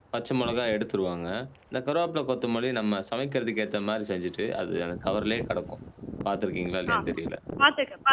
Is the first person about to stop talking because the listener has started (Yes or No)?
Yes